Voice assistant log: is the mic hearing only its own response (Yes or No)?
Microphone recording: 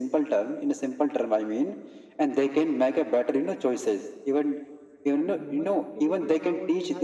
No